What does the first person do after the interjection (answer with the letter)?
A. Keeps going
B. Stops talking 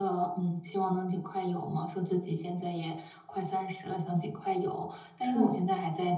A